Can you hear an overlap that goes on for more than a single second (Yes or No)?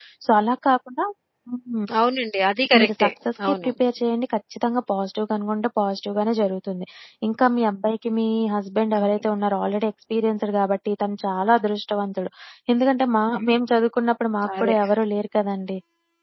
No